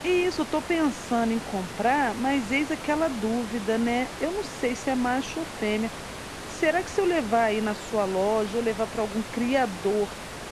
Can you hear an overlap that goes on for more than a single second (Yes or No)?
No